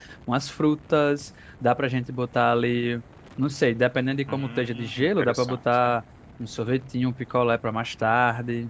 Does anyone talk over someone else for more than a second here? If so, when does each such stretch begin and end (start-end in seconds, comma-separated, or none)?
4.3-6.0